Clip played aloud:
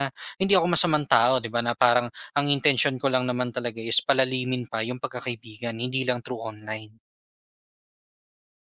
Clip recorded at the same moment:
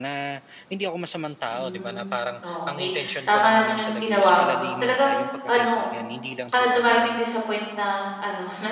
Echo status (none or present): present